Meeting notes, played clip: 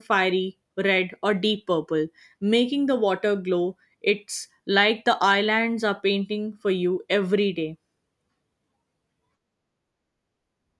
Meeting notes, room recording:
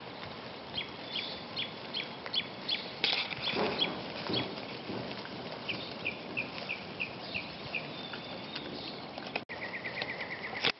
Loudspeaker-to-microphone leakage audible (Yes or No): No